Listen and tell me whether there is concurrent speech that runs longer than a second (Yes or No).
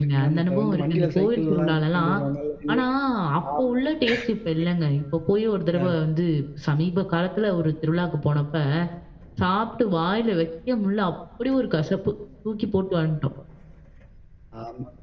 Yes